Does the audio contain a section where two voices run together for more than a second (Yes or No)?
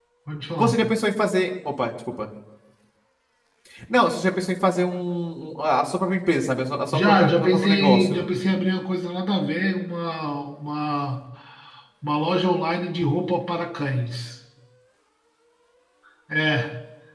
Yes